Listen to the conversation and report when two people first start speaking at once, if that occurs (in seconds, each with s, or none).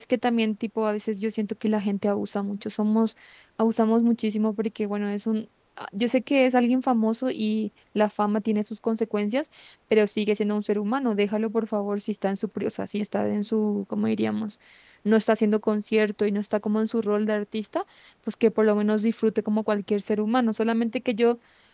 none